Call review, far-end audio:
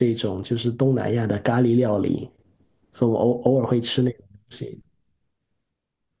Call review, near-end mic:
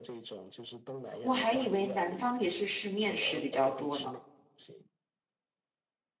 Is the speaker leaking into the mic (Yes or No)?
Yes